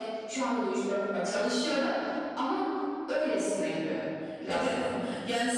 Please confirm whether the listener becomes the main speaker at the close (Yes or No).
Yes